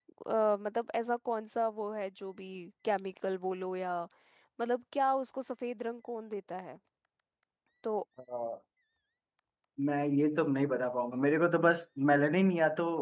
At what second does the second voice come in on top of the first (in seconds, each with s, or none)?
none